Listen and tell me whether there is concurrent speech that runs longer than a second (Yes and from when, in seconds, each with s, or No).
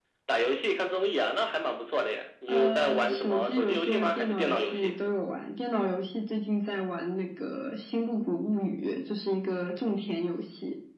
Yes, from 2.5 s